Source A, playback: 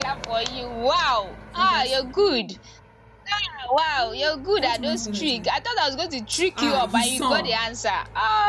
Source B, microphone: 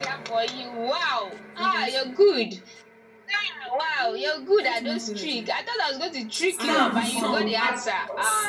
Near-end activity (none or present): present